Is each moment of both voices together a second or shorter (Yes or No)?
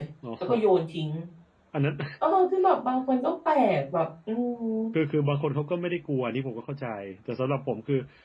Yes